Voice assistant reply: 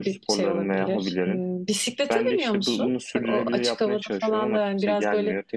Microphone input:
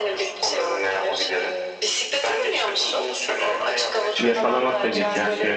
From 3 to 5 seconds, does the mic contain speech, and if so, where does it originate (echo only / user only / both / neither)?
both